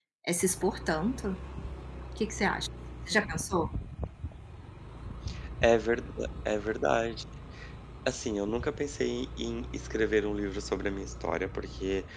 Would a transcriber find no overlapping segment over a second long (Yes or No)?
Yes